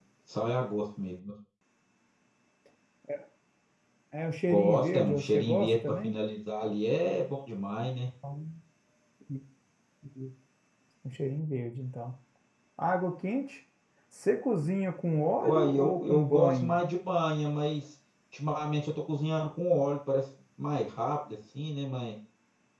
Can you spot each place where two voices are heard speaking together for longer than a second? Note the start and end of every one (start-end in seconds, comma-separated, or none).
4.5-6.2, 15.4-16.7